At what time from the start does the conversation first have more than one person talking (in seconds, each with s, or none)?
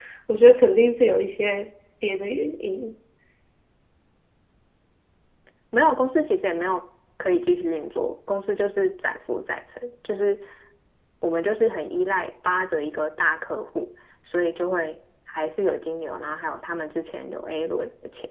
none